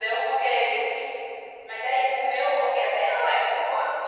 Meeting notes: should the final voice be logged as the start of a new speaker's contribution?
Yes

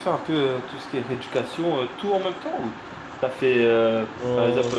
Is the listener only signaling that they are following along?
Yes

